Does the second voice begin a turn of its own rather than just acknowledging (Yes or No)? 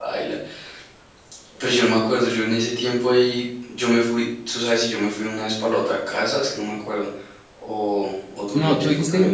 Yes